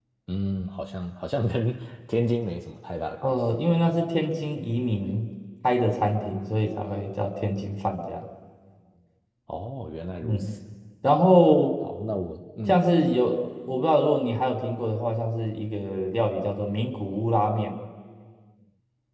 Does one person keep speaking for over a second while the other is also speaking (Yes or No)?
No